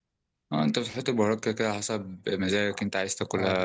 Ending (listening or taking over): taking over